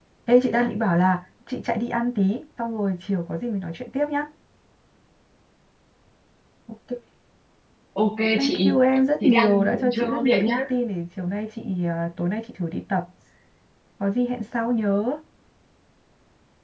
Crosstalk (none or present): present